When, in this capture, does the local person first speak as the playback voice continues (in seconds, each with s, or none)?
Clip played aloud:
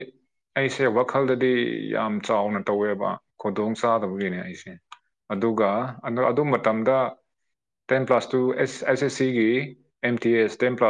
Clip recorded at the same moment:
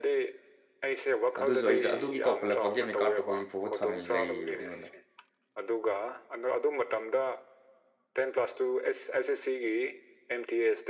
1.4 s